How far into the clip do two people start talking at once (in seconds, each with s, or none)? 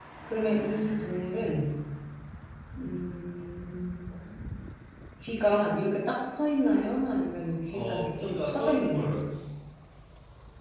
7.7 s